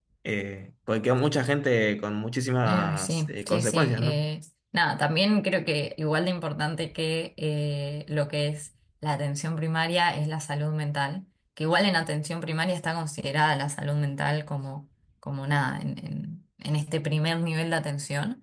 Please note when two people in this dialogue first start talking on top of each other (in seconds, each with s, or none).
2.6 s